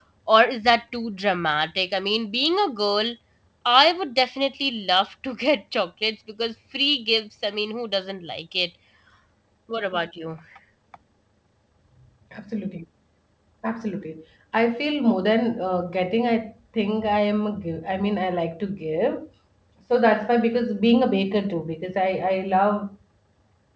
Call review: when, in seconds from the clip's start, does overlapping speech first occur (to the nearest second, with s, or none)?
none